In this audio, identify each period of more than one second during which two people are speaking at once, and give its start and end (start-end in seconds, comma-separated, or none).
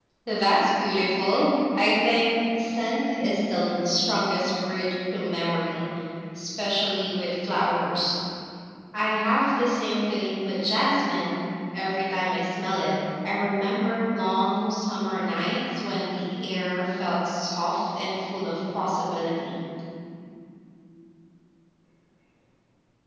none